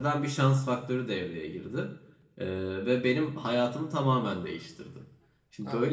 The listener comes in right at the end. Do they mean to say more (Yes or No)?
No